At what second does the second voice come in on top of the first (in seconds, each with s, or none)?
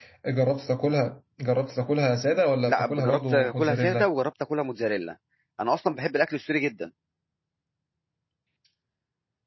2.6 s